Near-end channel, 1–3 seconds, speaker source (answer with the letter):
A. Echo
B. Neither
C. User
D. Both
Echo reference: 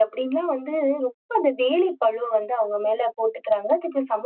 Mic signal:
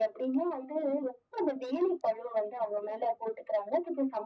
A